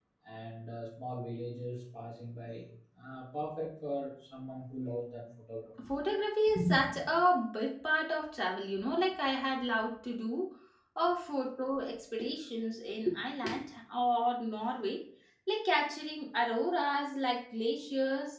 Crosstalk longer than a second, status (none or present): none